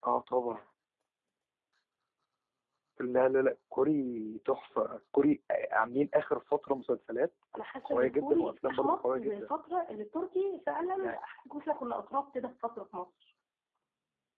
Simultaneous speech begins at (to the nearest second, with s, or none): 8 s